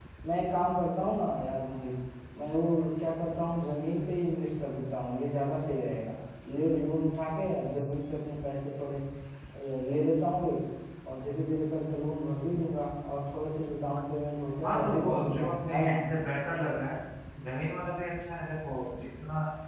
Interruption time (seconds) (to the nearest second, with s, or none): 15 s